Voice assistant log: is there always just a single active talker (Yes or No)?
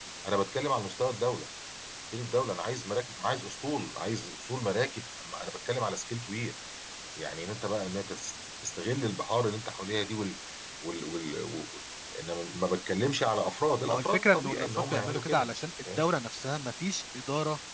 No